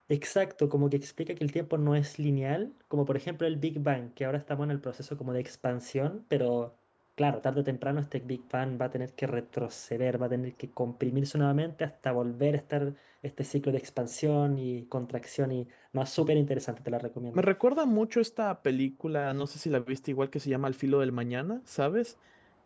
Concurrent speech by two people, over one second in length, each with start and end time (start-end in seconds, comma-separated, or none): none